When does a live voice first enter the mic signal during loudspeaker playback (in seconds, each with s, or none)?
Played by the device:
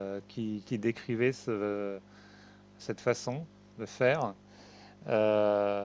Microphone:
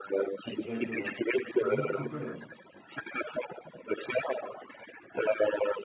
0.4 s